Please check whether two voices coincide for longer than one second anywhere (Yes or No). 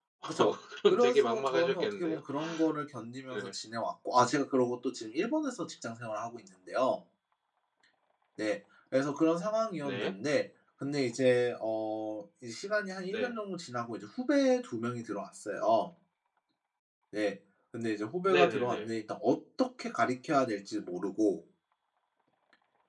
Yes